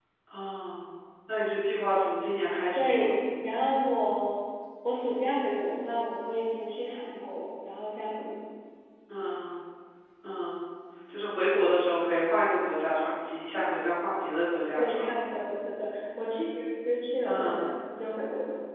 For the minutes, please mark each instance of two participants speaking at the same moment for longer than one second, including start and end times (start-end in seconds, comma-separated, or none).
none